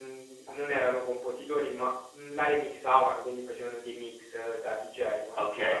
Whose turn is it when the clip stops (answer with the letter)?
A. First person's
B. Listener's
B